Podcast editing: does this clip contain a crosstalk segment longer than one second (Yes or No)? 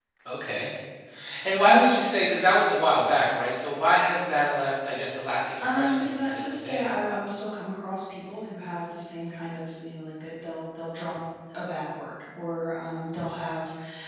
Yes